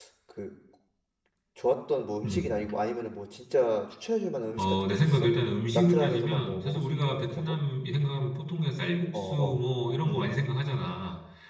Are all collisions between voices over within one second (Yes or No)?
No